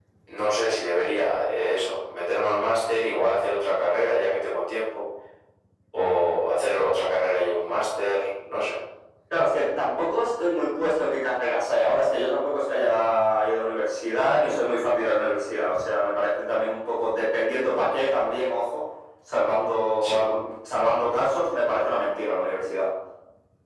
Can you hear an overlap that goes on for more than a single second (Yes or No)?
No